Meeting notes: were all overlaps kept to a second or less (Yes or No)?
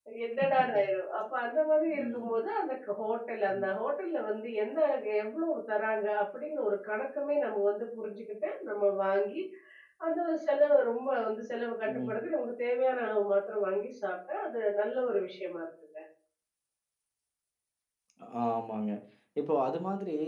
Yes